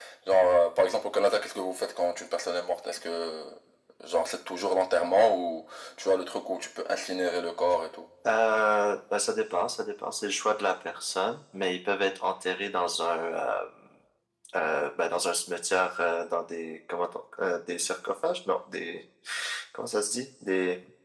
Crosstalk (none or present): none